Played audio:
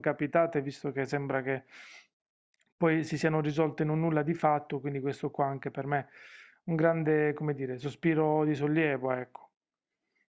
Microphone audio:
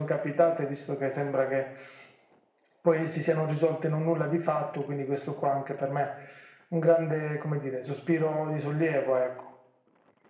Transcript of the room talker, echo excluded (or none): none